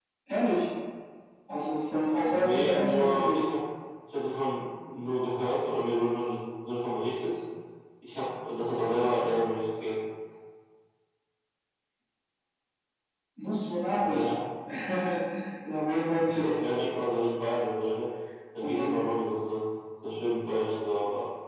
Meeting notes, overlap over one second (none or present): present